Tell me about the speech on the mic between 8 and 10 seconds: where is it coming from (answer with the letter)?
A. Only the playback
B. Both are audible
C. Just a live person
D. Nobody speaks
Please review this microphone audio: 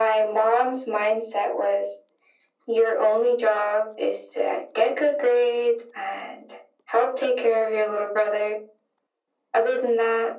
A